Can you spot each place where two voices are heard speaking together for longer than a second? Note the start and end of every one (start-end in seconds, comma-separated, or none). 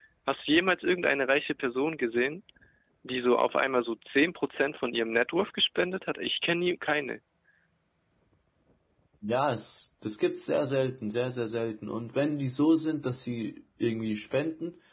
none